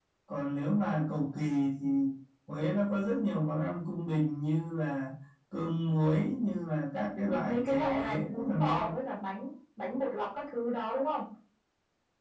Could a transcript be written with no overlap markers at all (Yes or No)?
No